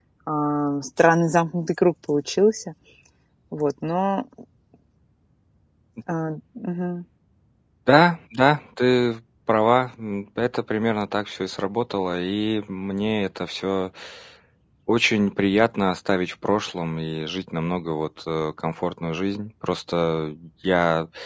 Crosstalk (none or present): none